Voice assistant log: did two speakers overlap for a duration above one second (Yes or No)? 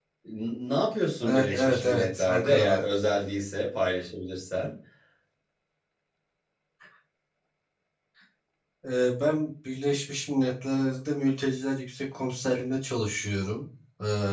Yes